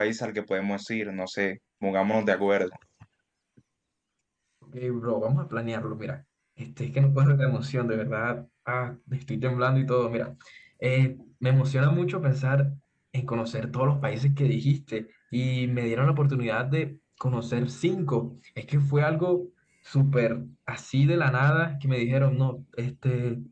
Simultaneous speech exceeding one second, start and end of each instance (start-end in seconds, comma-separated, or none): none